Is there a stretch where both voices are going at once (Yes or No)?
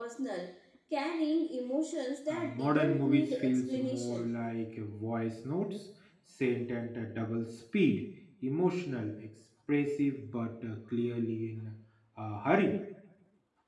Yes